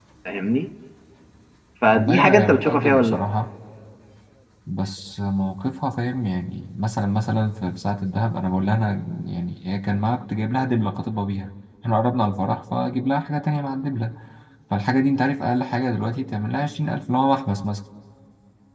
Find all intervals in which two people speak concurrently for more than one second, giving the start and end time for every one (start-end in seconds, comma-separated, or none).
1.9-3.2